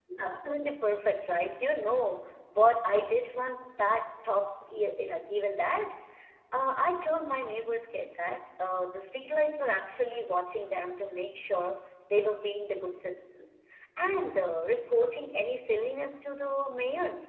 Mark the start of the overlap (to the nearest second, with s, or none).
none